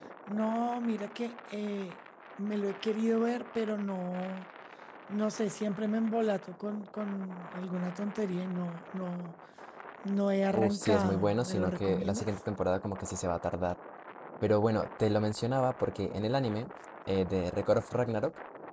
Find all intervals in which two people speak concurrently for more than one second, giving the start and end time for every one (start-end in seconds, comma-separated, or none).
10.5-12.3